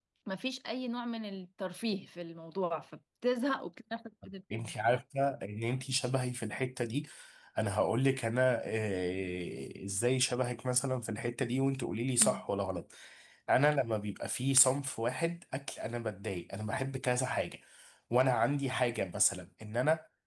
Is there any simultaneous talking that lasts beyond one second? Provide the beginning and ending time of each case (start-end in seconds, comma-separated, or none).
none